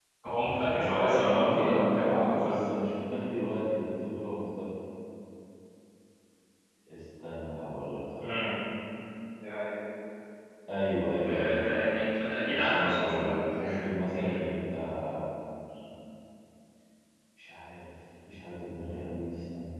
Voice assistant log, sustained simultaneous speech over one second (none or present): present